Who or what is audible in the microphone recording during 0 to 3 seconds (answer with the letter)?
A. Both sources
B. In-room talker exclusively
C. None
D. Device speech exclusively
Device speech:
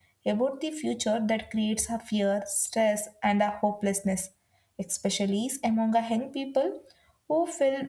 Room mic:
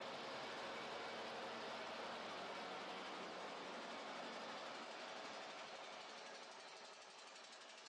C